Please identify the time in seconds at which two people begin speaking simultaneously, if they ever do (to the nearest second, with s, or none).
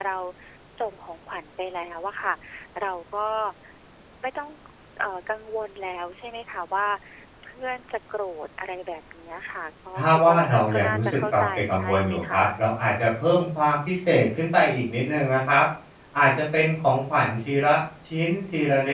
10 s